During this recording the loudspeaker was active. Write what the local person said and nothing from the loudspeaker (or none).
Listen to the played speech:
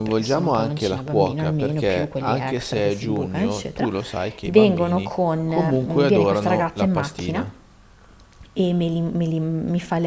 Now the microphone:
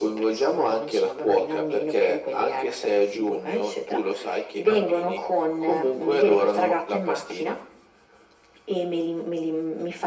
none